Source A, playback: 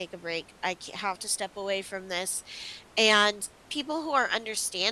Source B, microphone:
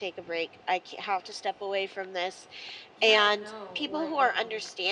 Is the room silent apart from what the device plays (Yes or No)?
No